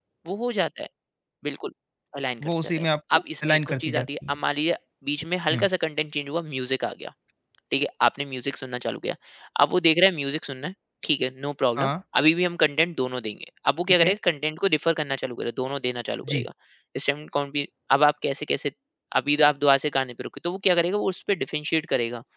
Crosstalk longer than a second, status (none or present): present